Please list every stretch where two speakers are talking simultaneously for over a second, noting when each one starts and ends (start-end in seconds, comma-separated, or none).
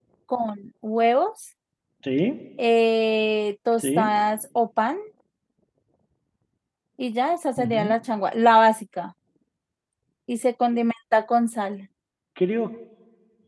none